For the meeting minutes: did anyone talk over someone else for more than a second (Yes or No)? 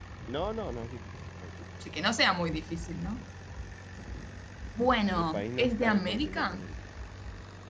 Yes